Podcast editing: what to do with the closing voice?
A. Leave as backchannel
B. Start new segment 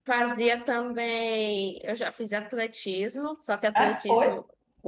A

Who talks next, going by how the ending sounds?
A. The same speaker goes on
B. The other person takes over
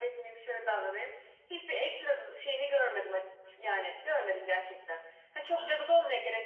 A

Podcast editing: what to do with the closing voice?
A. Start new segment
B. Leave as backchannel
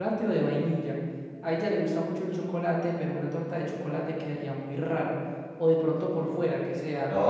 A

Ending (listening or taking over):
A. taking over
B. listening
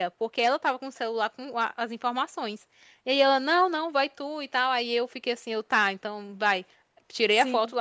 B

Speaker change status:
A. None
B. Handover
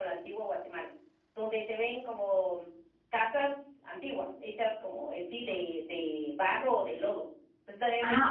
B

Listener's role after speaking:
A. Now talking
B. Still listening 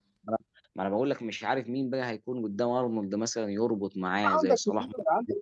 A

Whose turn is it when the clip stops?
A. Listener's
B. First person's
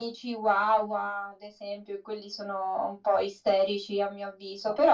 B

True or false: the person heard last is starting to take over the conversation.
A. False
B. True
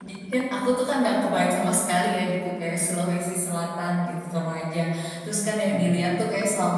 A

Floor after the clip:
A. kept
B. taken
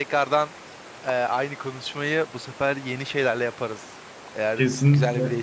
B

